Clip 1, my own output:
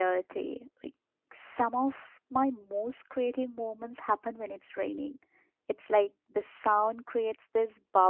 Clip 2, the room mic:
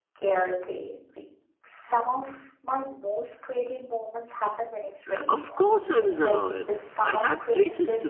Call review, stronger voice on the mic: user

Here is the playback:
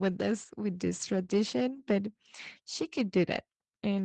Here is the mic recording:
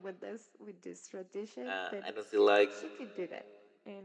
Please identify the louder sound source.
user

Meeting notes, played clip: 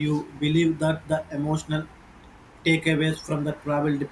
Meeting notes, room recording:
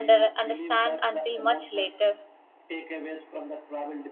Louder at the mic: user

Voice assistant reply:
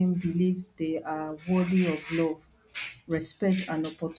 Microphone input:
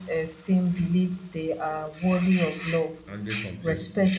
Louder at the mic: echo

